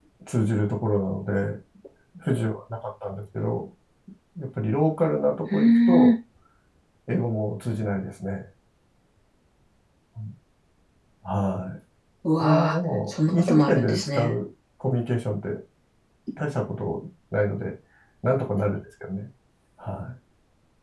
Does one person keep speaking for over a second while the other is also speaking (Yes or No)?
Yes